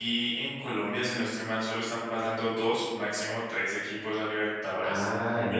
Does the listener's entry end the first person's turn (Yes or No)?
Yes